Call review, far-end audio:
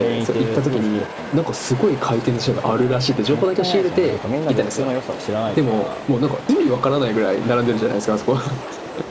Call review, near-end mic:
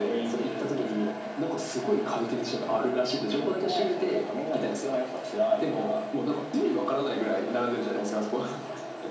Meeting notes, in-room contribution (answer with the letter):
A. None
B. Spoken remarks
A